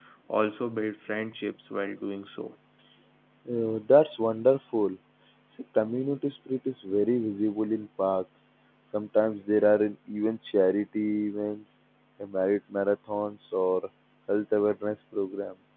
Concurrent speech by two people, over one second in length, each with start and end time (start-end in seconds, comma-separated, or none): none